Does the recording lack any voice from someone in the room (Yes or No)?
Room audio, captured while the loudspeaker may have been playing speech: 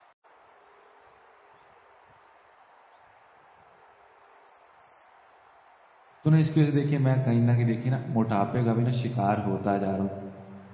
No